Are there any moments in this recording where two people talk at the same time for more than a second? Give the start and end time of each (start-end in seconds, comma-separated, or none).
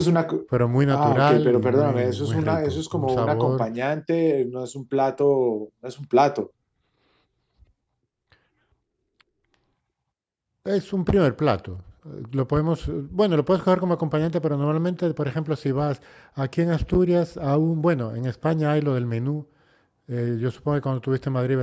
0.9-3.7